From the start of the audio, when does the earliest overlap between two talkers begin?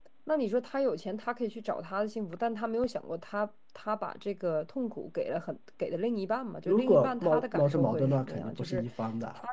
6.7 s

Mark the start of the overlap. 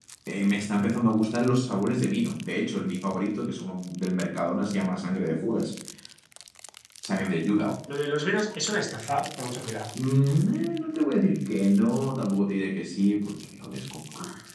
none

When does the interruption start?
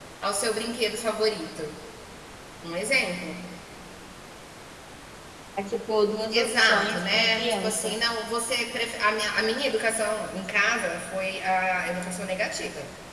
6.3 s

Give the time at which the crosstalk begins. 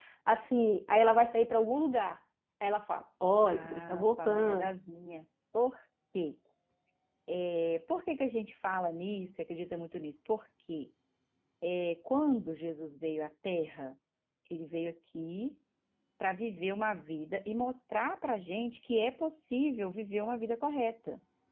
3.4 s

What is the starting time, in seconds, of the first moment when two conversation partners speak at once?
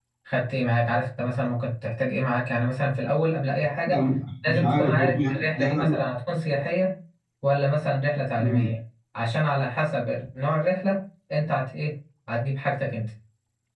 4.5 s

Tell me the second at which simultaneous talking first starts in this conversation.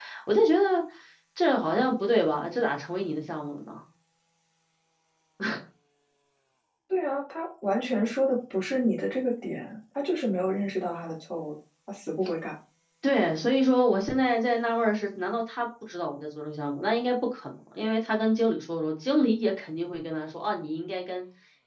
none

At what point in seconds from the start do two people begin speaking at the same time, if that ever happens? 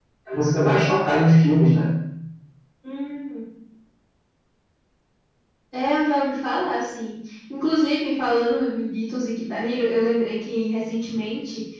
none

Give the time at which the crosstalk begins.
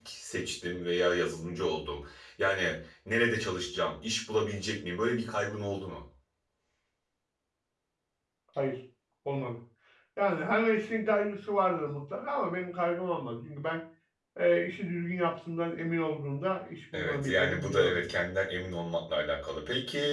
16.9 s

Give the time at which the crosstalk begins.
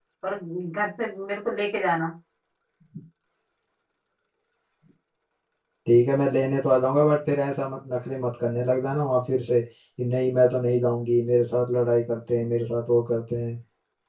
none

